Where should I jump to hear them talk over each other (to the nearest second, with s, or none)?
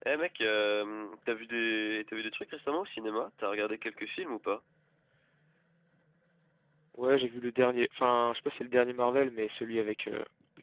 none